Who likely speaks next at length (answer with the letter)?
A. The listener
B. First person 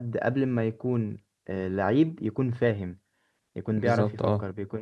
B